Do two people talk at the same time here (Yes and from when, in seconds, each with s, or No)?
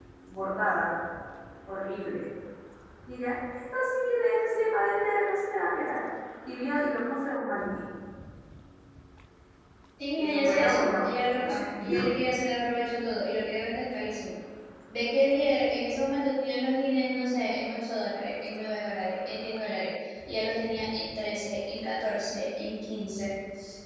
Yes, from 10.2 s